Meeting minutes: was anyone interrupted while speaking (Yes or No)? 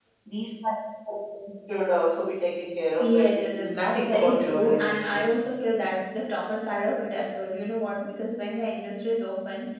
Yes